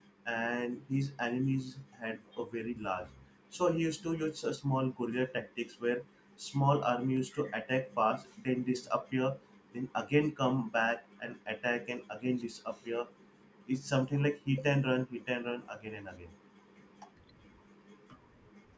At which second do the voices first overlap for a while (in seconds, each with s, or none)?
none